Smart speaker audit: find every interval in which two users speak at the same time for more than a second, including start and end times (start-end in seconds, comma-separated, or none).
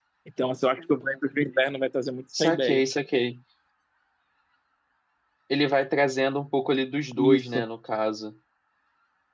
none